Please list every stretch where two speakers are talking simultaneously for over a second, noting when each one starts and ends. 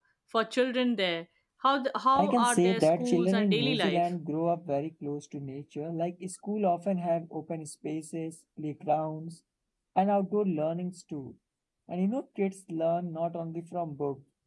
2.1-4.0

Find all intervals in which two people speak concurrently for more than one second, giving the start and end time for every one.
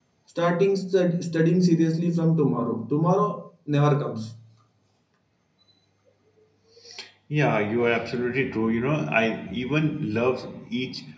none

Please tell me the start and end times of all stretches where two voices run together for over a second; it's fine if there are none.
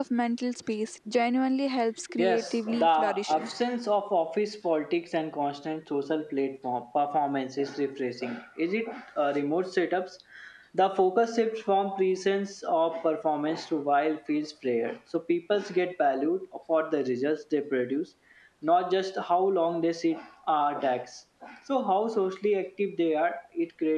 2.2-3.5

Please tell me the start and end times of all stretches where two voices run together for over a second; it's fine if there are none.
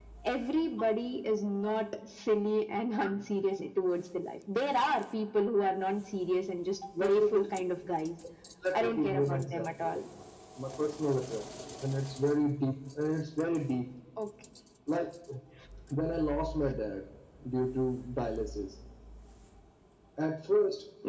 8.7-10.0

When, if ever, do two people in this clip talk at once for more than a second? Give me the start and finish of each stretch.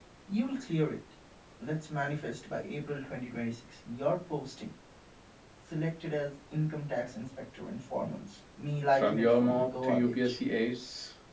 8.9-10.3

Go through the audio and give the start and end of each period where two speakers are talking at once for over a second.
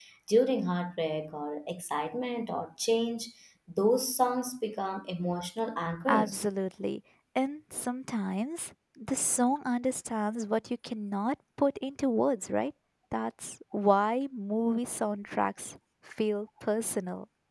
none

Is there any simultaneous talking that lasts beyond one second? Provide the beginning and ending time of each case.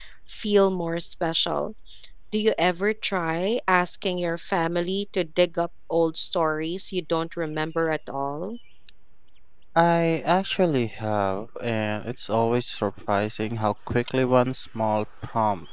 none

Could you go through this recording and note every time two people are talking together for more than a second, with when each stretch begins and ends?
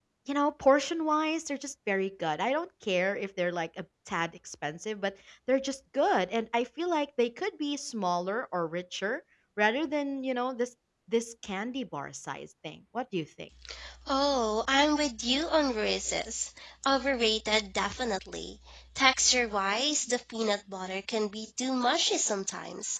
none

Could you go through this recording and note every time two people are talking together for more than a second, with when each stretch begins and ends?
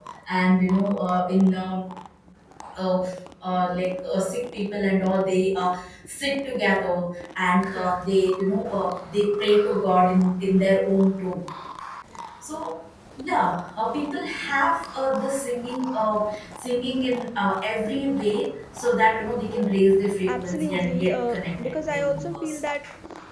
20.3-22.6

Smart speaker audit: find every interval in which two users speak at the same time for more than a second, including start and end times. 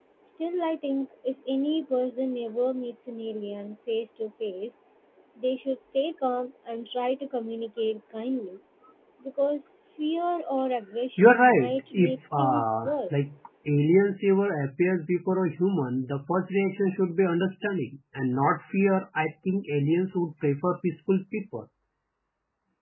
11.2-13.1

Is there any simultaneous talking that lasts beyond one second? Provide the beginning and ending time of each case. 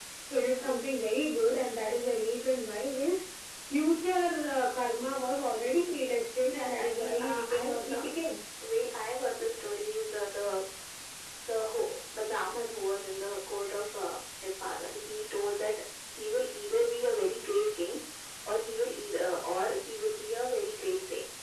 6.6-8.2

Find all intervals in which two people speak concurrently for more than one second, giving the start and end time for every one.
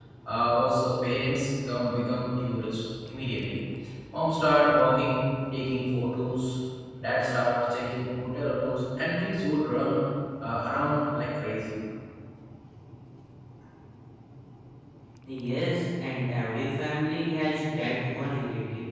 none

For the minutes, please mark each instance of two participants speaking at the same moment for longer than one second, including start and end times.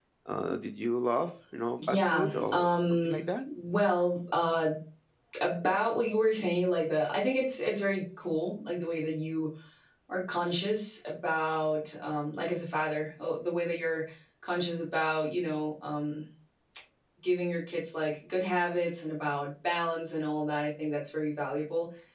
1.9-3.2

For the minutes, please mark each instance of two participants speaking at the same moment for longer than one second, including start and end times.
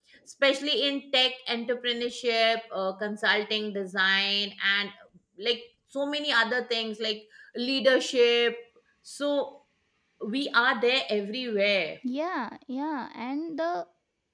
none

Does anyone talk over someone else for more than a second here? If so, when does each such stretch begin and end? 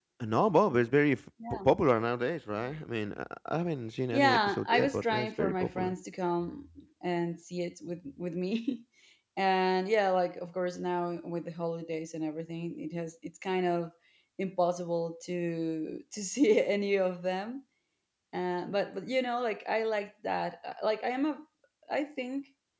4.1-5.9

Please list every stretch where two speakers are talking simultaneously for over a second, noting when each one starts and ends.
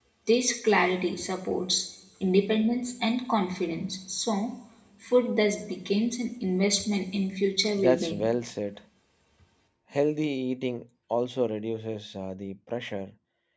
none

